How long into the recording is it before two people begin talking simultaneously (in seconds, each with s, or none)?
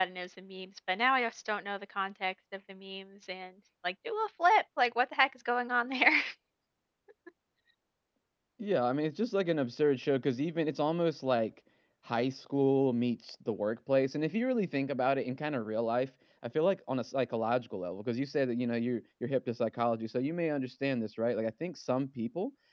none